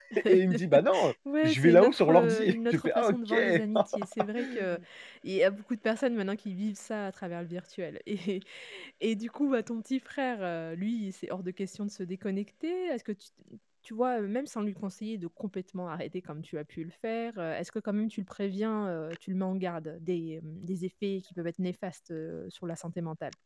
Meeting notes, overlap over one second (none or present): present